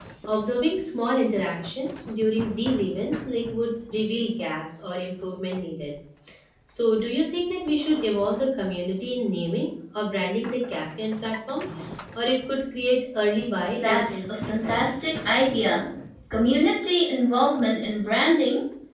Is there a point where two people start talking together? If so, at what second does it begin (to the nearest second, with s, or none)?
14 s